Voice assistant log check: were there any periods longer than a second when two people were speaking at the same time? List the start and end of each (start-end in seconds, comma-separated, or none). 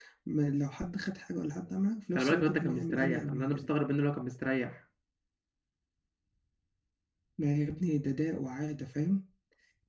2.1-3.6